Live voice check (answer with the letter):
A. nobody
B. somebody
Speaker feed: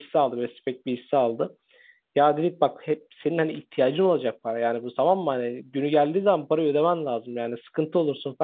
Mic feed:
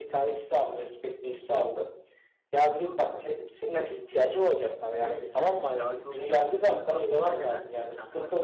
B